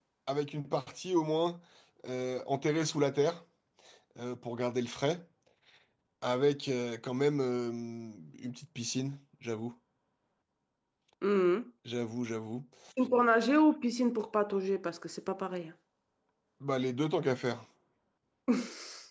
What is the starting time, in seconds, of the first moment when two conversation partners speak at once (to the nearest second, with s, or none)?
none